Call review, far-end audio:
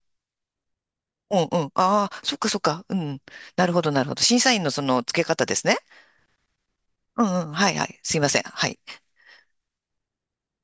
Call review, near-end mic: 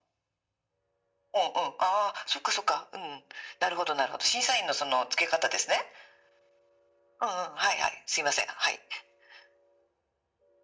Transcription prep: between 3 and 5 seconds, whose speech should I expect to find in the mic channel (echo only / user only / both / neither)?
echo only